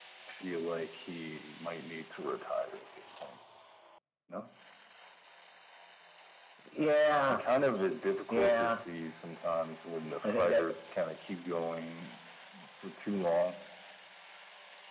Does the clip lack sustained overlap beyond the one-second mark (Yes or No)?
Yes